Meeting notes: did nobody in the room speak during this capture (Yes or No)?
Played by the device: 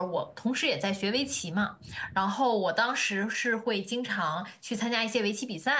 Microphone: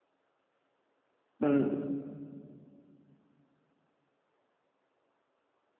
No